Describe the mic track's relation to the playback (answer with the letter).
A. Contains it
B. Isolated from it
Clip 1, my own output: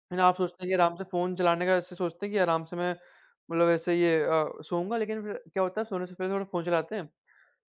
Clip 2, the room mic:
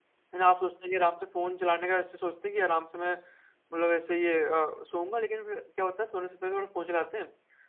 A